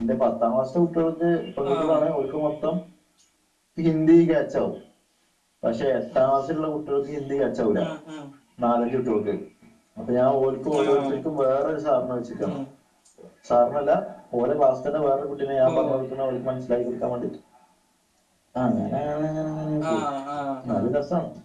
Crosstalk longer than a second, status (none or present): none